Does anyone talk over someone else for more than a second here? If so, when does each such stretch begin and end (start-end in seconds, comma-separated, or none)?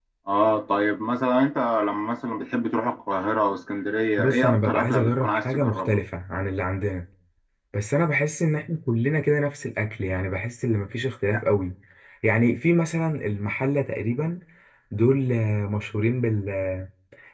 4.2-6.0